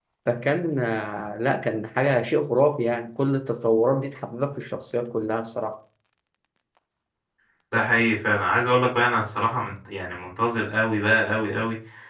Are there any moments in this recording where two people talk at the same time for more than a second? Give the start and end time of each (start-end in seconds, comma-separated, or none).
none